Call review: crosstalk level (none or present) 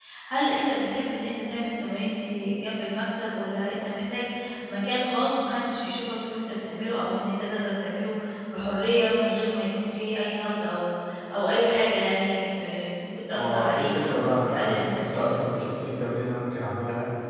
present